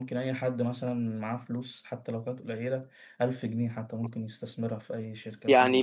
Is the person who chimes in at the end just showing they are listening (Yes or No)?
No